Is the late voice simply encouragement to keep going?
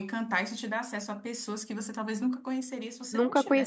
No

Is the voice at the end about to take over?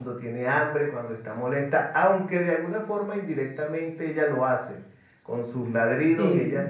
No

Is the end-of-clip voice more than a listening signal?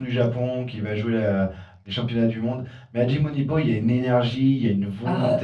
Yes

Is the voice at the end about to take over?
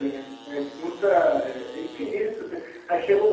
No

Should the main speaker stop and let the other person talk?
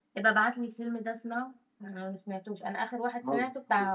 No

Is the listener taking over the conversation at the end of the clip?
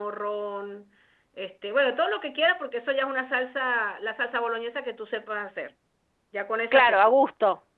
Yes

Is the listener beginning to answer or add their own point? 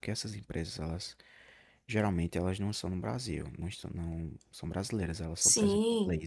No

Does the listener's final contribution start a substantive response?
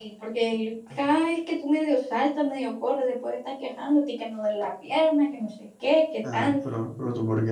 Yes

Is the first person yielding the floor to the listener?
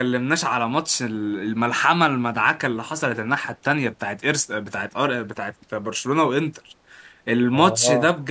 No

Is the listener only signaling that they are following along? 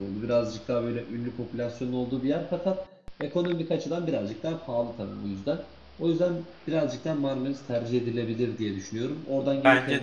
Yes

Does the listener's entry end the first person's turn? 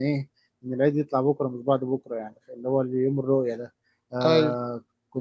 No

